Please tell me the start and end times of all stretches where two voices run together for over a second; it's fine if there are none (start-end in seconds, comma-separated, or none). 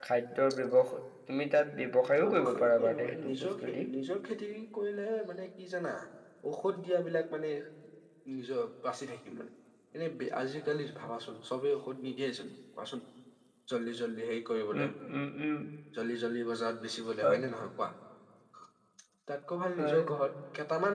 2.2-3.8